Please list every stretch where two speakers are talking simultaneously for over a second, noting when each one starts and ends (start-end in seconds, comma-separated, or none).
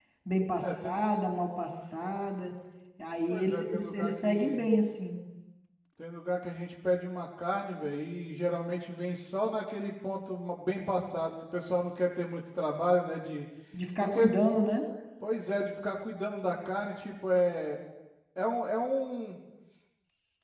3.3-4.7